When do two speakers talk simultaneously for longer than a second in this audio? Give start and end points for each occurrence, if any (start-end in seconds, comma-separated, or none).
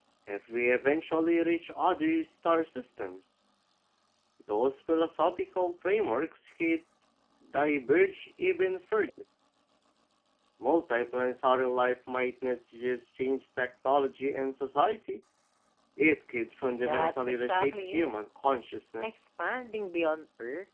16.9-18.1